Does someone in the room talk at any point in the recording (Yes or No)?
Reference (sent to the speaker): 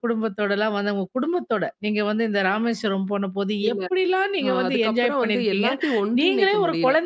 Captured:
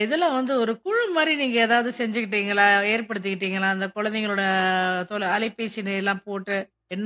Yes